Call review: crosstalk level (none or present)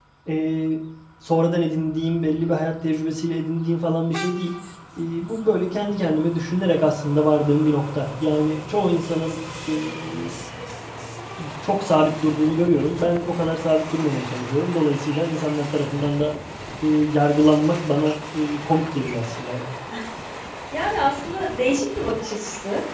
none